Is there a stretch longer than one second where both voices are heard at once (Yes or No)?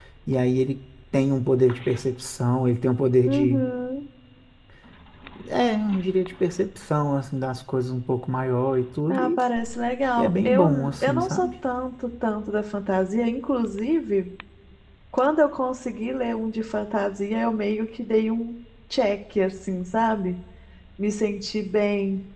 Yes